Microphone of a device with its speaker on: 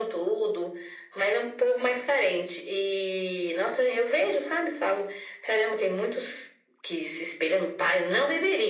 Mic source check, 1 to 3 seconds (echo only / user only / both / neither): echo only